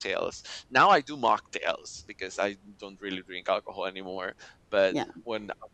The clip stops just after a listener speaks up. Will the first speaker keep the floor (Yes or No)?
Yes